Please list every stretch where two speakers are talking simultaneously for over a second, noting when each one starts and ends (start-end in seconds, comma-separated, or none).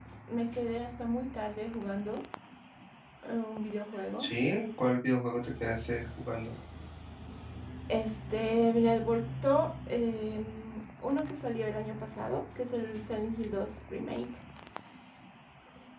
none